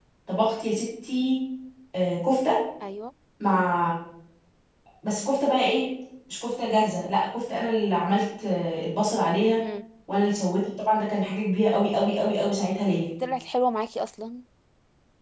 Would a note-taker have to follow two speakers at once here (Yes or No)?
No